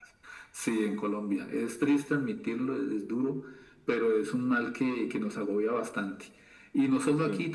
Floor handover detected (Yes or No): No